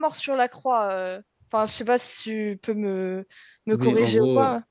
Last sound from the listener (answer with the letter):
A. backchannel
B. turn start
B